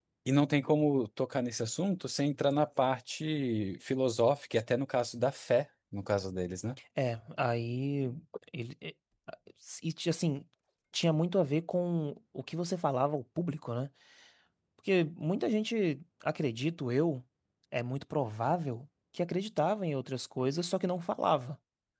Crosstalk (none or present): none